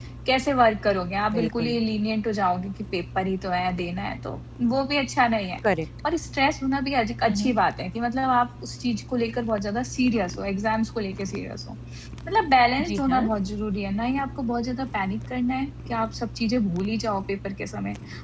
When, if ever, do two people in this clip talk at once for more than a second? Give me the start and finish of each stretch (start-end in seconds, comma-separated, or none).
none